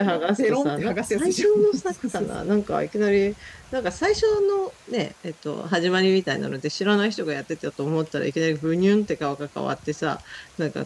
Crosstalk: present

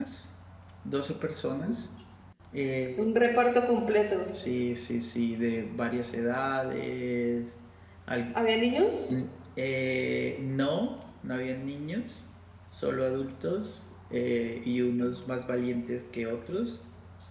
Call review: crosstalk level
none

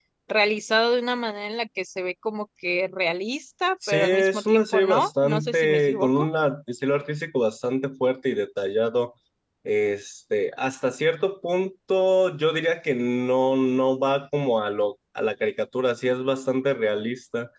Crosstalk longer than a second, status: present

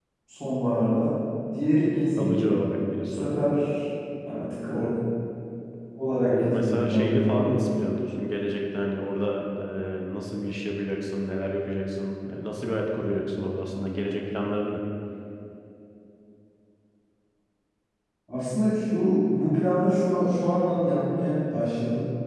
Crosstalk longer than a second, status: present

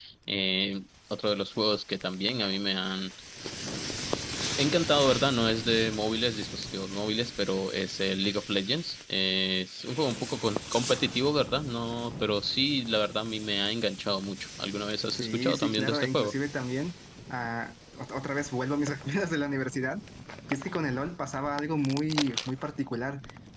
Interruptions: present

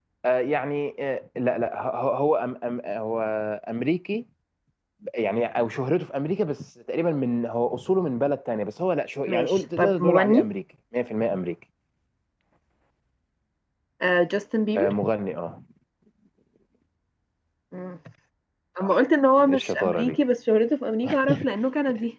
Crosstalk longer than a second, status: present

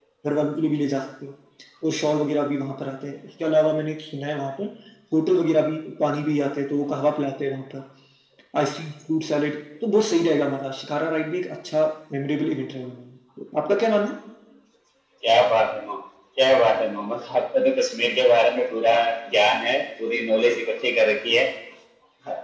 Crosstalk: none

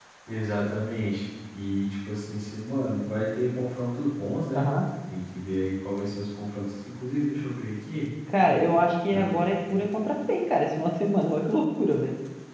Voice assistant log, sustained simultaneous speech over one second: none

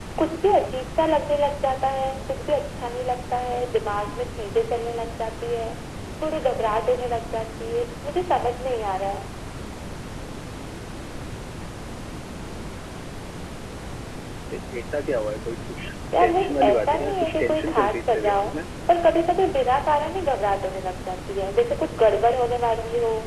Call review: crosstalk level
present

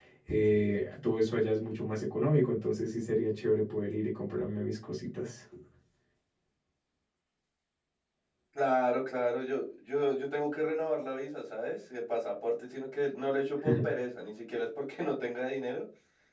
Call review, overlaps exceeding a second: none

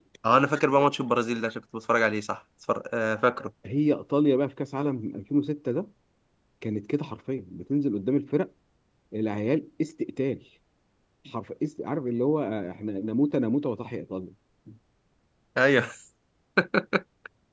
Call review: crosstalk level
none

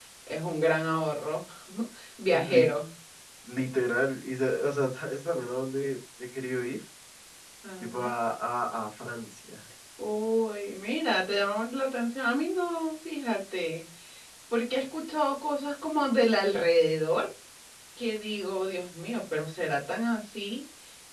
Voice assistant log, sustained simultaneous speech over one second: none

